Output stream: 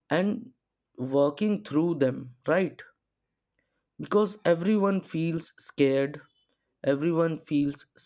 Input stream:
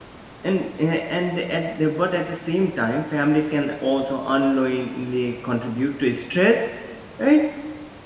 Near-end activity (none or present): present